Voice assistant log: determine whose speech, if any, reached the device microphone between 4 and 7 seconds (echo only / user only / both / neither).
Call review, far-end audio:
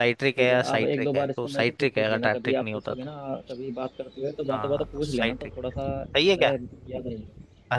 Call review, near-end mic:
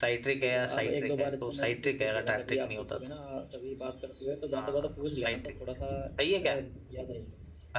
echo only